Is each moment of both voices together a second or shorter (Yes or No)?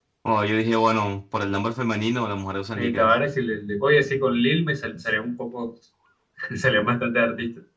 Yes